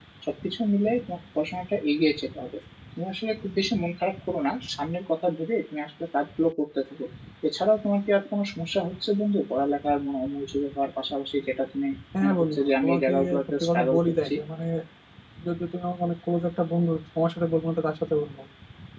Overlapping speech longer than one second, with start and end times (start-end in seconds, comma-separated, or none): 12.2-14.3